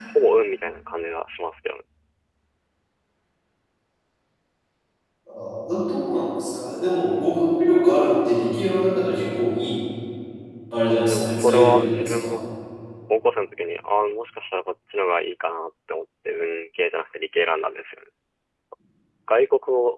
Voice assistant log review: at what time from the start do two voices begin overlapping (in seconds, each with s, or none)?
10.9 s